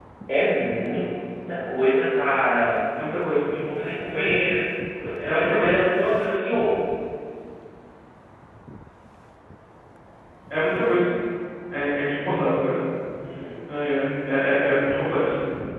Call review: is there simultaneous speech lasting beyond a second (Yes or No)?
No